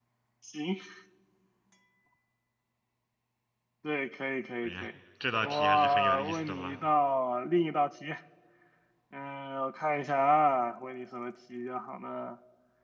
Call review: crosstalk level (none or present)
present